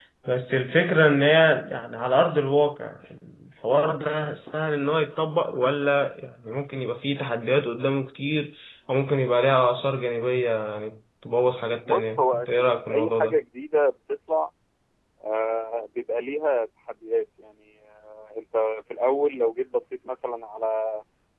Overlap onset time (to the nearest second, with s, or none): 12 s